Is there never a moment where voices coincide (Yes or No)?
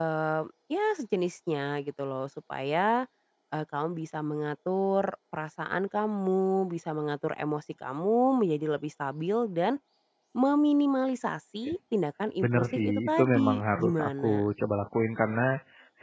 No